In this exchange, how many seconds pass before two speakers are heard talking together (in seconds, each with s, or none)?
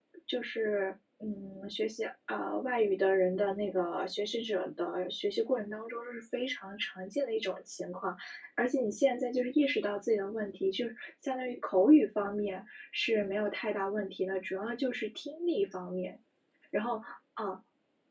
none